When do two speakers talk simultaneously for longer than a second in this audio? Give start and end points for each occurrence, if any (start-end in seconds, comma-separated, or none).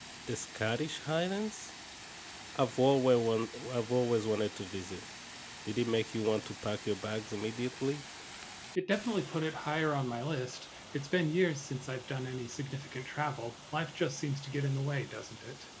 none